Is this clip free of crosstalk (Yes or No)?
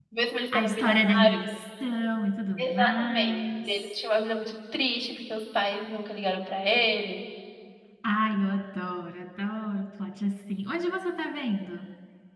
No